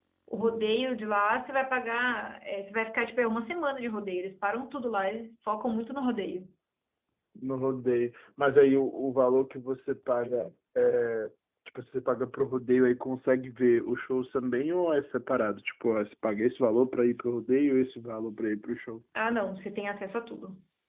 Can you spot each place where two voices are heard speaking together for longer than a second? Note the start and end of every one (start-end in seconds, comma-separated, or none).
none